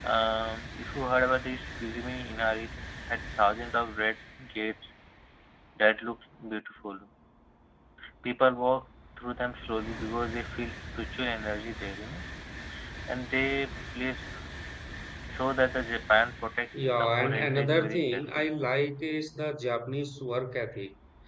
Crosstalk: present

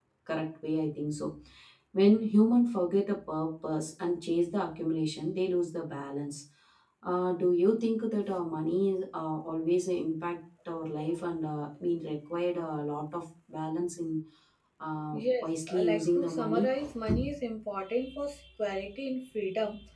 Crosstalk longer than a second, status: present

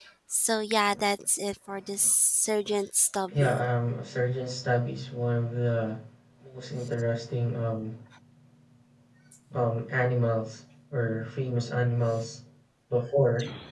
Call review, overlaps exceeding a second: none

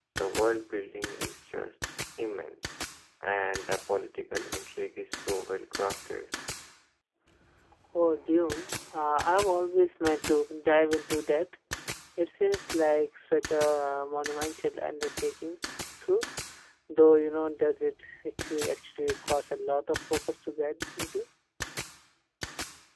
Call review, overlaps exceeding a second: none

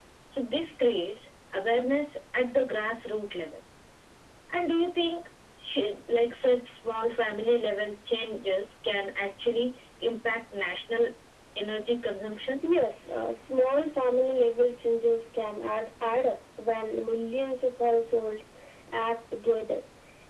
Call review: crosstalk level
none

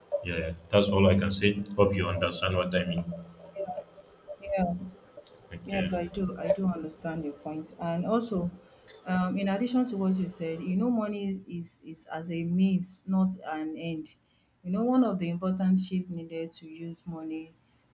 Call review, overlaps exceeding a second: none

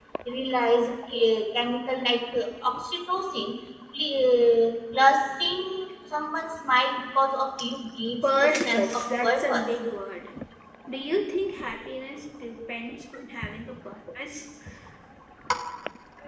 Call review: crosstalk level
present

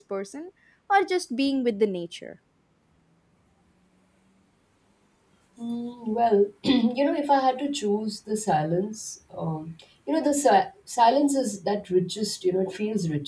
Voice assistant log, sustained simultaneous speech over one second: none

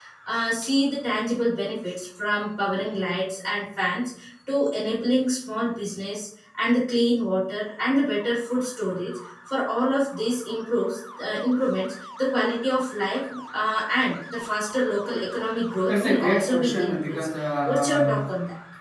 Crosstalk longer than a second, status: present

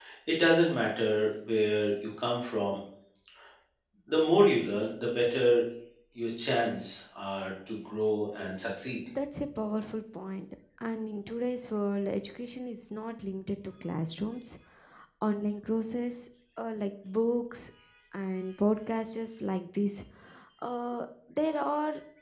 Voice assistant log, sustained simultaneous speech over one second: none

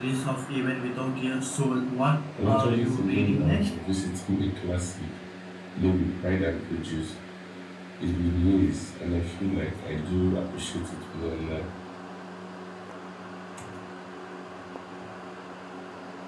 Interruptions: present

